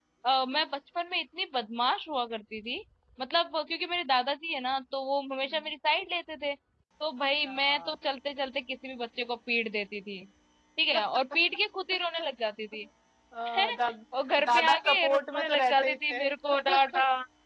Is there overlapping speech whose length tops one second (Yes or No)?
Yes